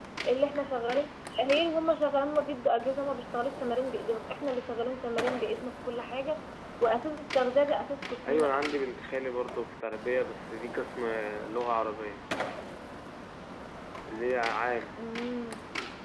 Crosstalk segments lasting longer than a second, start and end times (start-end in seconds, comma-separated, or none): none